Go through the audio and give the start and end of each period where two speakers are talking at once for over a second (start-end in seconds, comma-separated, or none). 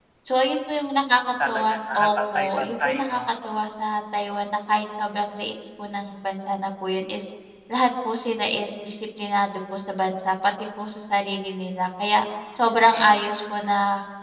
1.5-3.2